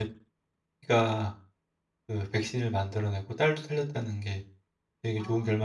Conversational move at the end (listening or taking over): taking over